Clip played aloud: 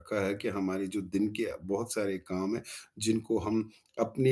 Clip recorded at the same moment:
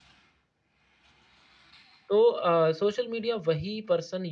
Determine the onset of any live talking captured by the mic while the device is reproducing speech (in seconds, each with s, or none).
2.1 s